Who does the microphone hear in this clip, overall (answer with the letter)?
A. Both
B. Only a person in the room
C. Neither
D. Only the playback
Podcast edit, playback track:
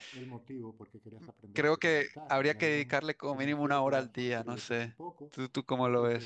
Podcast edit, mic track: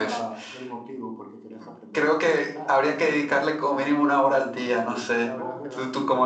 A